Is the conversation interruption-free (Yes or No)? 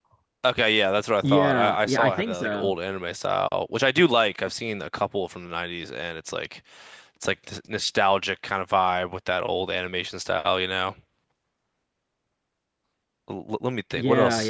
No